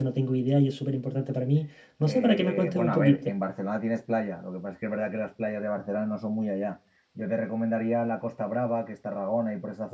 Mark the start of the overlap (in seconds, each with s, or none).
2.0 s